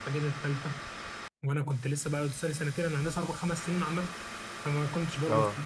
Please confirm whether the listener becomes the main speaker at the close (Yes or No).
No